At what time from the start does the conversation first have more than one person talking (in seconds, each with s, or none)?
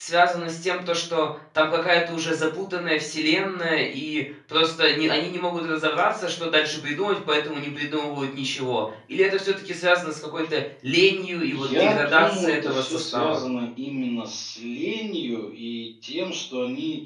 11.8 s